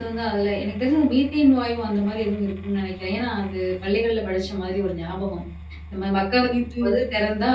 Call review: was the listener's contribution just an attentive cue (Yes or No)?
Yes